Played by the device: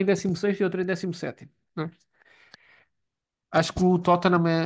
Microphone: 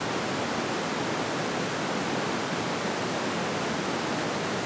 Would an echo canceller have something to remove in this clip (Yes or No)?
No